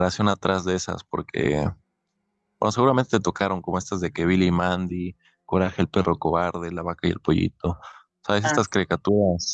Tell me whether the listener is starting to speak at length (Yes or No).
No